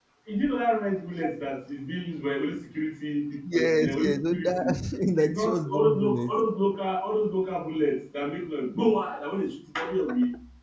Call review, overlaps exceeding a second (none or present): present